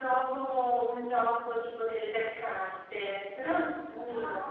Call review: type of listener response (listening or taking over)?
taking over